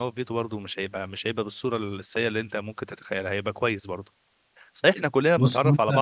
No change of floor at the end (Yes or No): Yes